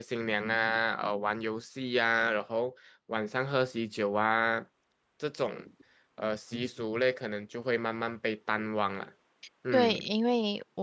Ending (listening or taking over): taking over